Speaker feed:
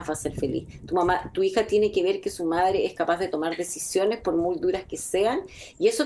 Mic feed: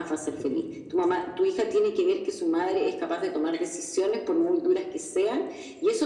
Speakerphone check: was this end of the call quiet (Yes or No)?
Yes